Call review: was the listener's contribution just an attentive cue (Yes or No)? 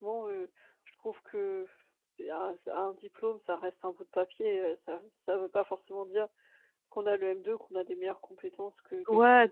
No